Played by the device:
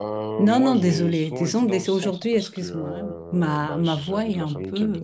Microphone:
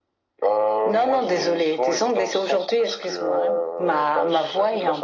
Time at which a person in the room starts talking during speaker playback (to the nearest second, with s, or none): none